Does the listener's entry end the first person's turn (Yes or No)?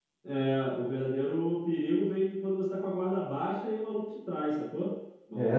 Yes